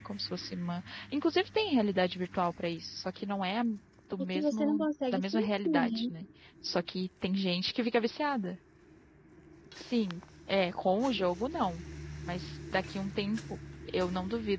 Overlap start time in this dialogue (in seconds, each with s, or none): 4.3 s